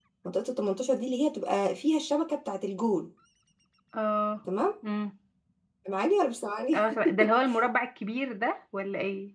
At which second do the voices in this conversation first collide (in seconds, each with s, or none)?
none